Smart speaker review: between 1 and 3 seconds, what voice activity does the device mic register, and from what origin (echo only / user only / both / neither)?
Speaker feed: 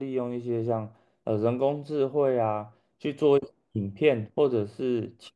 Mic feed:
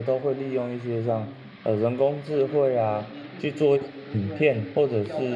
both